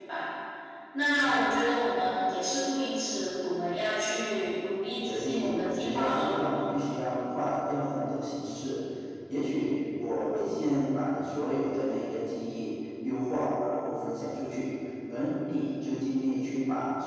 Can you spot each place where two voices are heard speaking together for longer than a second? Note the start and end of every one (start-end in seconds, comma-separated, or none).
5.0-6.3